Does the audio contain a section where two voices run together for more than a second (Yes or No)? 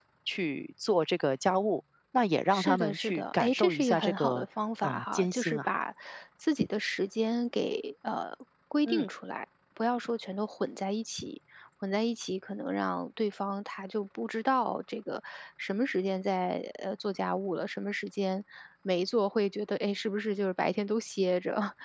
Yes